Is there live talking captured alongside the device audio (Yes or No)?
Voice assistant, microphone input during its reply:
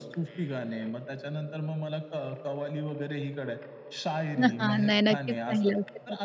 Yes